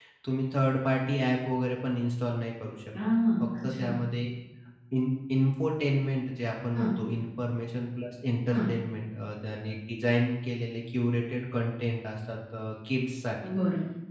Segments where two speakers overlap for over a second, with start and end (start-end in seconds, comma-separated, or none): none